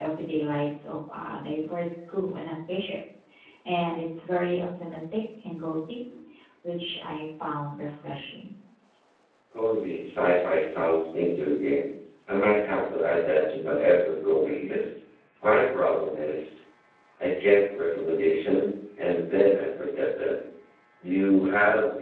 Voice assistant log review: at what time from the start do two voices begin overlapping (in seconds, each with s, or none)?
none